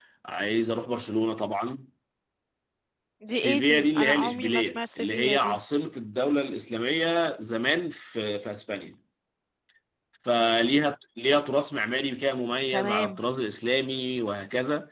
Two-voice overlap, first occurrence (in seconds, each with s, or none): 3.3 s